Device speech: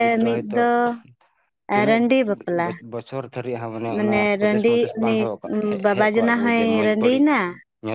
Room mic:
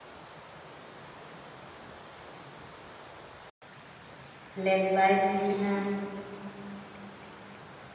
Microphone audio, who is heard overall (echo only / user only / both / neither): user only